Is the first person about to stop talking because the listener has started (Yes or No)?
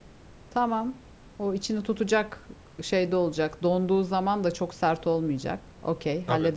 Yes